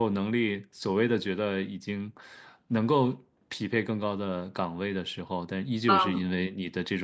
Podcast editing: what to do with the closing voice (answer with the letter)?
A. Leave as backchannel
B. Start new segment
A